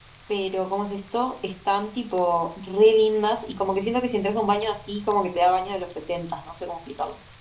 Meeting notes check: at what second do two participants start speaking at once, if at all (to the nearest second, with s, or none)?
none